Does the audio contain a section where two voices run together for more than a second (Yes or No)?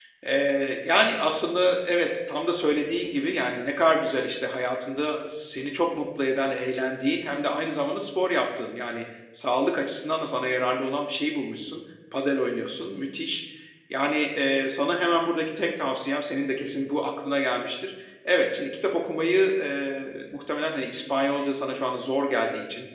No